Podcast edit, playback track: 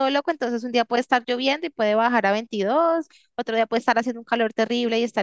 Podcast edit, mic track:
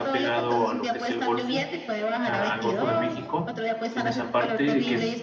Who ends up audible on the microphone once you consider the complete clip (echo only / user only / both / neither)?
both